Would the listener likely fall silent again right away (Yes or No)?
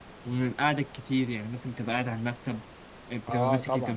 No